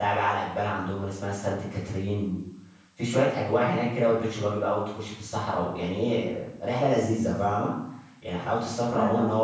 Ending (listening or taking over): listening